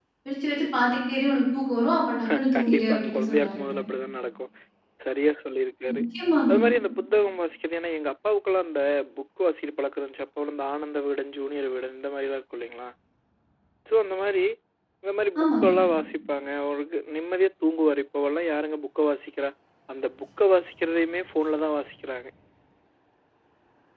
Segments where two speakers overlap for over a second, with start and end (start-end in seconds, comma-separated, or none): 2.5-3.7